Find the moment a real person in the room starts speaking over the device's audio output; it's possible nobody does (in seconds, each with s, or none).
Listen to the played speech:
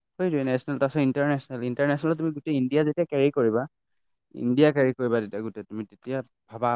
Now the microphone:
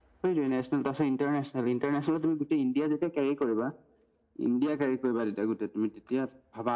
none